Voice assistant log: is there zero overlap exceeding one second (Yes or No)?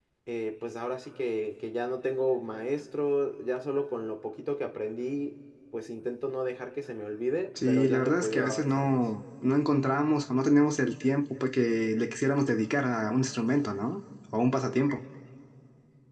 No